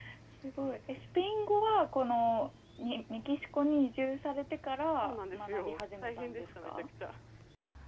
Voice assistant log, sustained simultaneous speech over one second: present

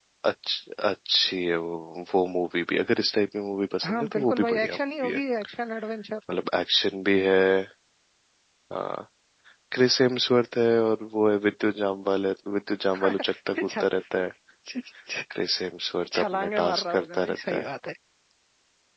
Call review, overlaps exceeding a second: present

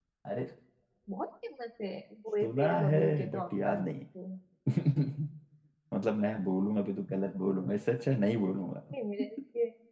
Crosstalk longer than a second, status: present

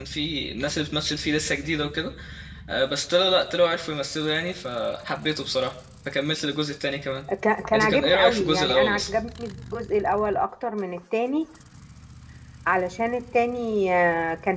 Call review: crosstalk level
present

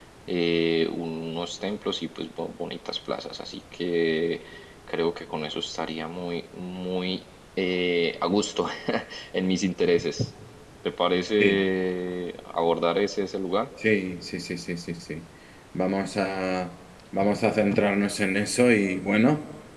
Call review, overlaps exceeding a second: none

